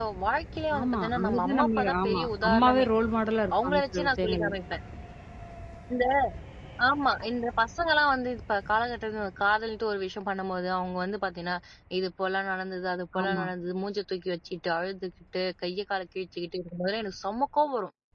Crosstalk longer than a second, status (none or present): present